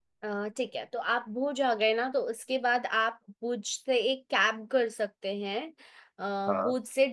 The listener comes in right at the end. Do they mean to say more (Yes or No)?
No